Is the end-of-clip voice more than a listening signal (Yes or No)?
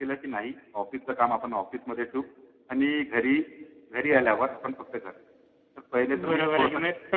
Yes